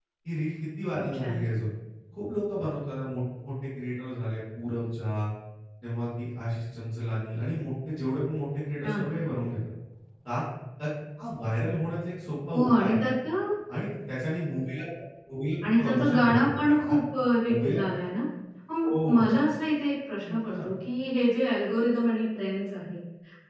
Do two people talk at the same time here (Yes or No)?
Yes